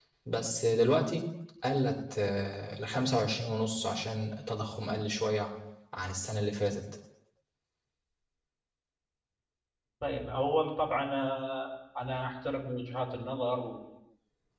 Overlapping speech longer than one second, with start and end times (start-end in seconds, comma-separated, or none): none